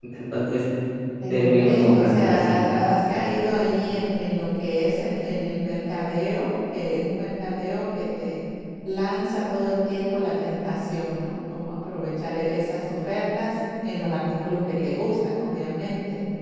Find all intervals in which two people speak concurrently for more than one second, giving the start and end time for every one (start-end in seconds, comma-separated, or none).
1.3-2.5